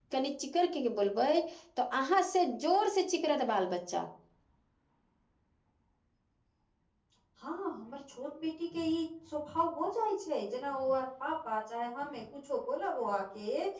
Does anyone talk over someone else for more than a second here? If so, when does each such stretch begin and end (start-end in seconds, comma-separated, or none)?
none